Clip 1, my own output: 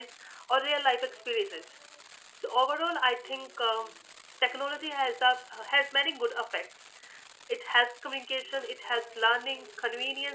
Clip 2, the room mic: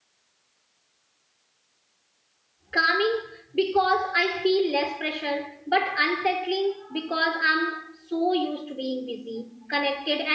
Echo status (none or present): none